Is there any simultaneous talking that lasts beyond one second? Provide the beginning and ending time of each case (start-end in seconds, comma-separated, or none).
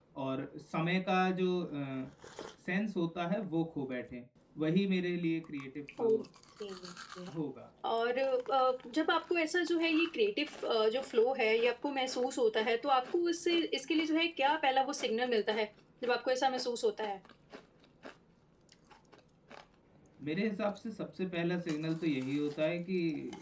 none